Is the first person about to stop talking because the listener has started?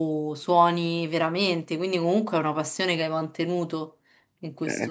Yes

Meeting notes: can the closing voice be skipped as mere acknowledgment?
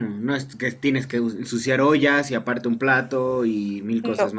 No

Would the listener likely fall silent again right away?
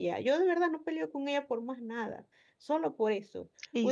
Yes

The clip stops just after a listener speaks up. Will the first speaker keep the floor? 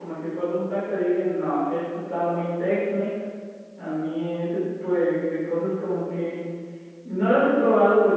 Yes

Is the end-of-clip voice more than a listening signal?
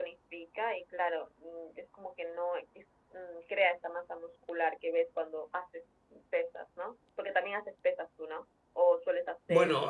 Yes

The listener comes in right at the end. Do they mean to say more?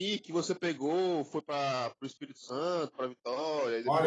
Yes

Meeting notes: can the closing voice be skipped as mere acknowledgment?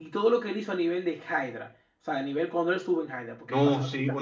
No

